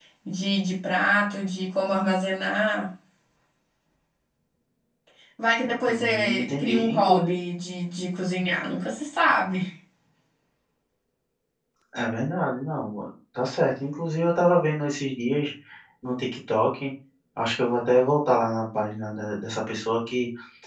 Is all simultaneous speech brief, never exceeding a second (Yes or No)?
No